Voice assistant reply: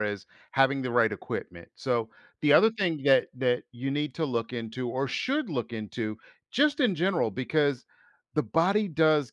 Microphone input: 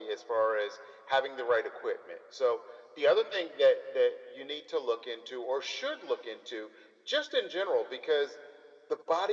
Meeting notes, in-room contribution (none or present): none